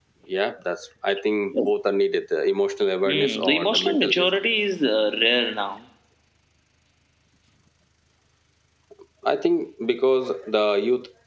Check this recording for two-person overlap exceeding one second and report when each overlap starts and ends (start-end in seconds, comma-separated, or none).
3.1-4.3